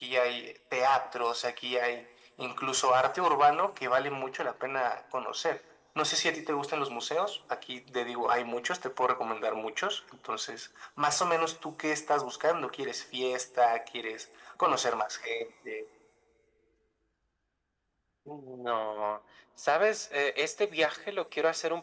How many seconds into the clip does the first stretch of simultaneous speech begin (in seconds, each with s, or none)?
none